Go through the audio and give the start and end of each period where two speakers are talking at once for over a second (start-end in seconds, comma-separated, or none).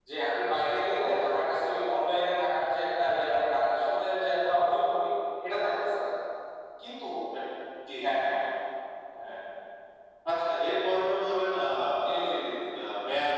none